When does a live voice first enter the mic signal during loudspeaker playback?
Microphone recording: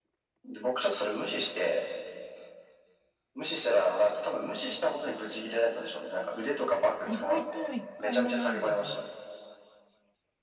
7 s

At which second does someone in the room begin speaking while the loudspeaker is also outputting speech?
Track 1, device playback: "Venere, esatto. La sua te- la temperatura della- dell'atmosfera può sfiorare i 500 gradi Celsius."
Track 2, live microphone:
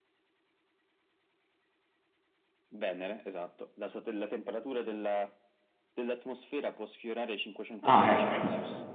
8 s

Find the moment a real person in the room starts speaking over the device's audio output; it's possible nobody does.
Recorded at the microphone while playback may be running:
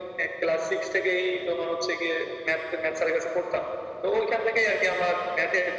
none

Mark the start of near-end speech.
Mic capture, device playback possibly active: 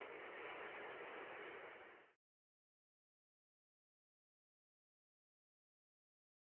none

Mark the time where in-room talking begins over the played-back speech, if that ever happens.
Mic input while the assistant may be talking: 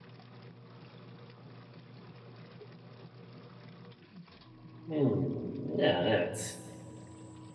5 s

